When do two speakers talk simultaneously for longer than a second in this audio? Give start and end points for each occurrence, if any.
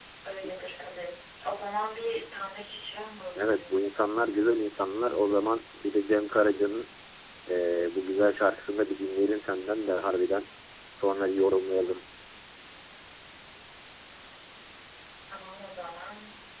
none

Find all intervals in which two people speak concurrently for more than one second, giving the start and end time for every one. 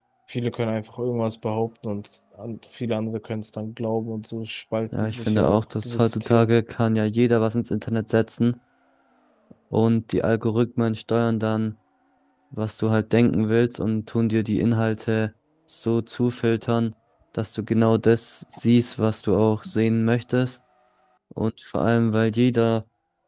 5.0-6.5

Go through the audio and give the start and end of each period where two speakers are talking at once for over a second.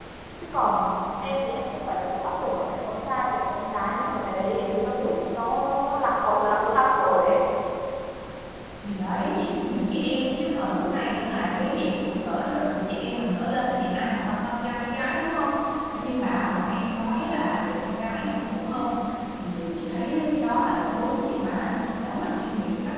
none

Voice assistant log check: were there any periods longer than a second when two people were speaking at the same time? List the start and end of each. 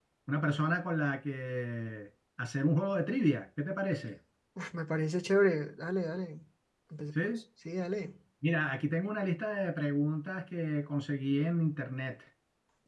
none

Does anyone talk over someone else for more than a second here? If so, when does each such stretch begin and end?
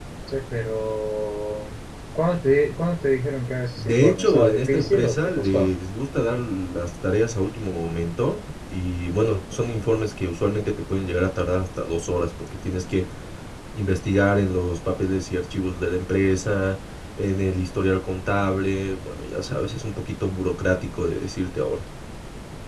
3.8-5.7

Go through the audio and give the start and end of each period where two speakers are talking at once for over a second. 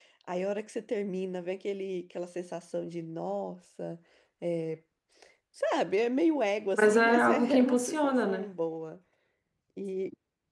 6.8-8.5

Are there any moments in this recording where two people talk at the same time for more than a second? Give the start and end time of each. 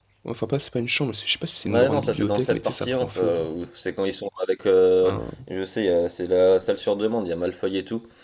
1.6-3.3

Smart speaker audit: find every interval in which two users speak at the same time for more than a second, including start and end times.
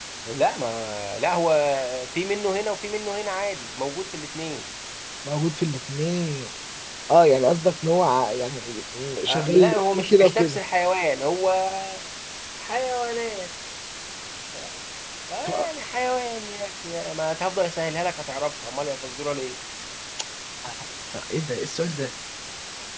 9.3-10.6

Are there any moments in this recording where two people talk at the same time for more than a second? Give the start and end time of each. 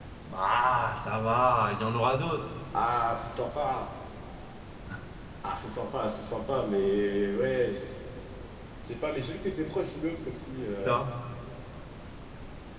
none

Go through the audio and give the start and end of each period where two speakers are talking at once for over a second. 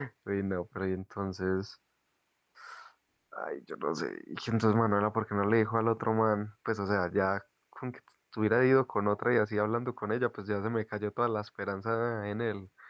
none

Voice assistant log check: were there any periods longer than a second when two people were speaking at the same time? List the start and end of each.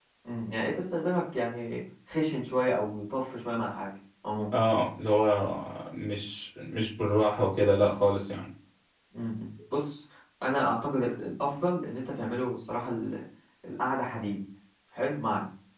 none

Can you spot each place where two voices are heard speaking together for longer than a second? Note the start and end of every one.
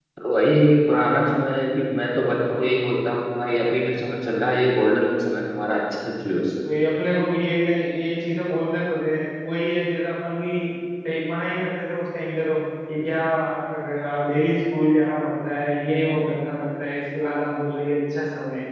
none

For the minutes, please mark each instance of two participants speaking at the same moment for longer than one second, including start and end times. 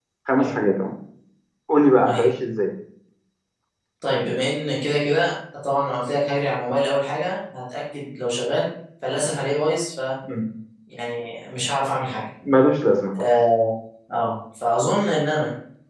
none

